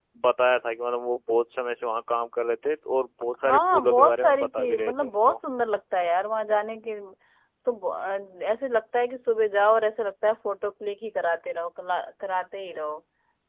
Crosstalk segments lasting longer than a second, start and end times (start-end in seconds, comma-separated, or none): 3.4-5.4